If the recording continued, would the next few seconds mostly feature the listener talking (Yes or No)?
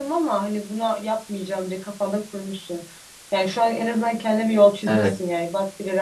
No